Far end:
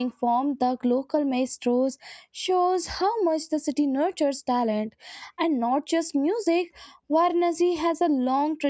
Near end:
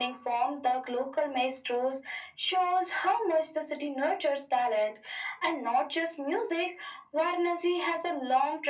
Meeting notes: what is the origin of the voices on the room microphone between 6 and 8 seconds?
echo only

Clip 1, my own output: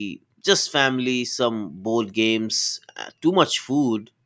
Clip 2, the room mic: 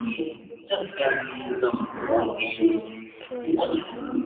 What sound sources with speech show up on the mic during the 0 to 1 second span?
echo only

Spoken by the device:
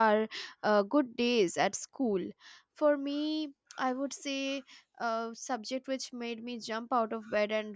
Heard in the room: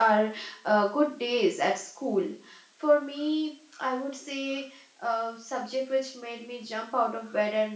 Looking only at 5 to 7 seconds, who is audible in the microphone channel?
echo only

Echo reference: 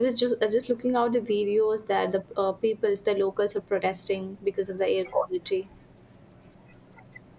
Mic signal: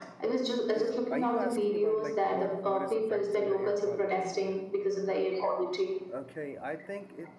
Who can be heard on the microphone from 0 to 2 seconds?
both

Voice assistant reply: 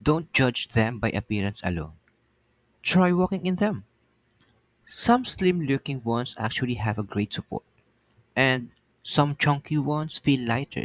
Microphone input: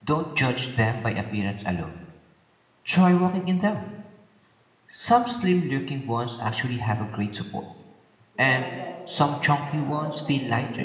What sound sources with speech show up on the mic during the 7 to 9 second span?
both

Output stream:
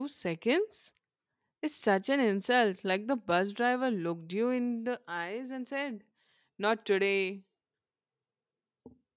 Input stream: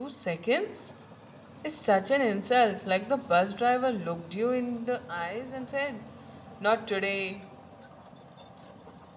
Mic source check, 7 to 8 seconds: echo only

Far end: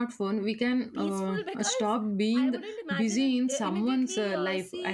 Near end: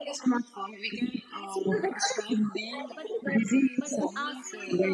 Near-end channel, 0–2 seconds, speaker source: echo only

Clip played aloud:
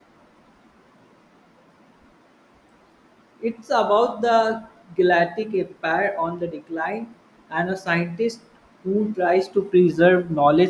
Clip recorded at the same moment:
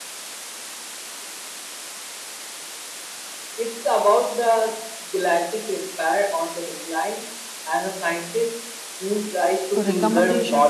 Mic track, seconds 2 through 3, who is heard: neither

